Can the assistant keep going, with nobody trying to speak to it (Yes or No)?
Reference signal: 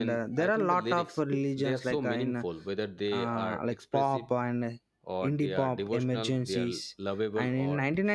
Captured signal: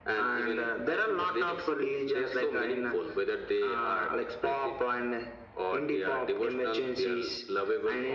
Yes